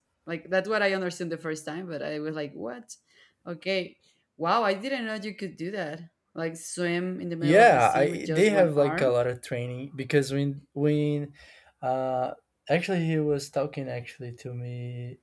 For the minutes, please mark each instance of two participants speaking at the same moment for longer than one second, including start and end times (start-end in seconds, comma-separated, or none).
7.4-9.1